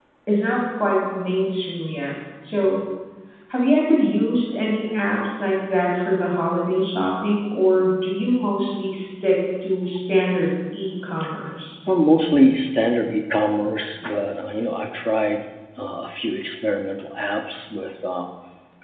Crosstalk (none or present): none